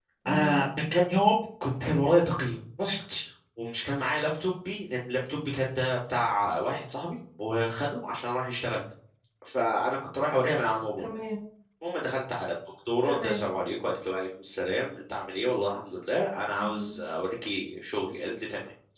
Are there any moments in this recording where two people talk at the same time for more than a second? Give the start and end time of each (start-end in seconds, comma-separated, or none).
none